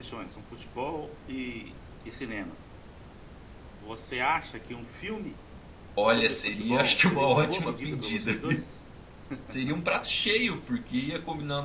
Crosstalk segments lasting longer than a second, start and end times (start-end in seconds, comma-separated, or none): 6.0-8.3